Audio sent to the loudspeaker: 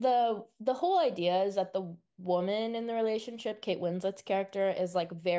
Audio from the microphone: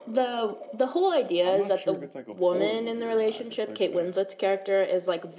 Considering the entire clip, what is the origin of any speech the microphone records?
both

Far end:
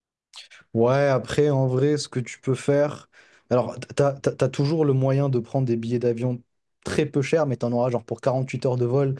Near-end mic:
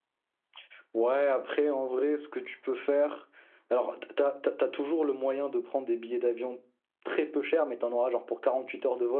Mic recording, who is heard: echo only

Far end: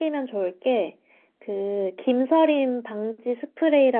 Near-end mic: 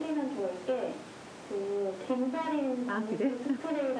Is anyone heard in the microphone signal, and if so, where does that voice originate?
both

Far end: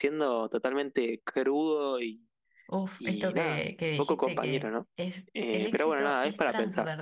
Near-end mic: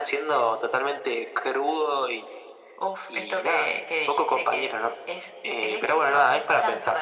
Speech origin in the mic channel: echo only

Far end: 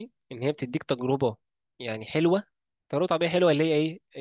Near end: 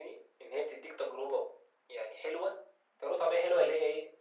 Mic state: echo only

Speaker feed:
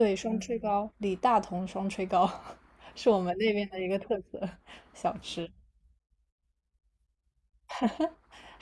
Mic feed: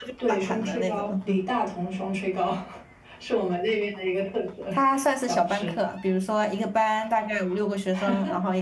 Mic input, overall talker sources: both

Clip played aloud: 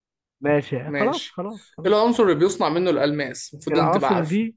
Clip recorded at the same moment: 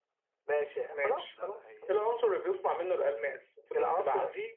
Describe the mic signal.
both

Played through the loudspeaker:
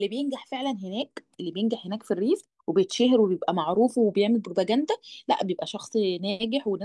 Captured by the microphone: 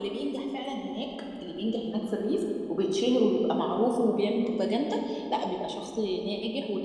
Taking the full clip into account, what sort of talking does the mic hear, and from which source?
echo only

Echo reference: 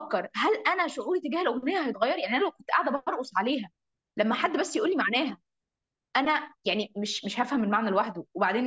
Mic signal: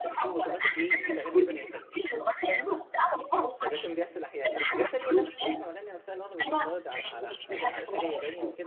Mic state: both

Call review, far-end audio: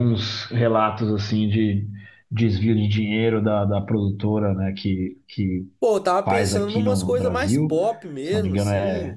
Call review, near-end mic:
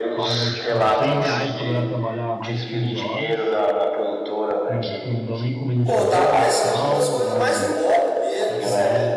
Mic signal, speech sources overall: both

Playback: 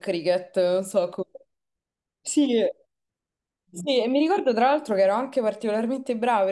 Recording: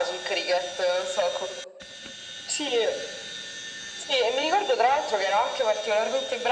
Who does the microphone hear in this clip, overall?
echo only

